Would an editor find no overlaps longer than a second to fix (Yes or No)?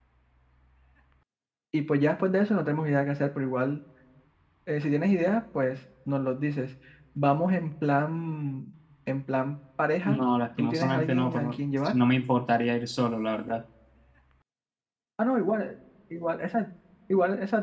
No